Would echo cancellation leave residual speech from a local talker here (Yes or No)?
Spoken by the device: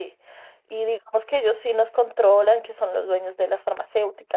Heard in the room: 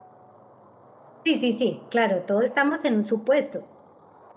Yes